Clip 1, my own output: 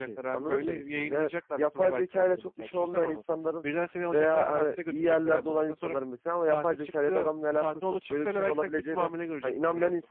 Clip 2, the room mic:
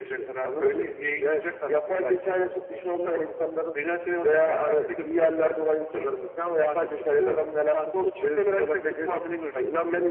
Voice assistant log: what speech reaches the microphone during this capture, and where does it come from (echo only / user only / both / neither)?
echo only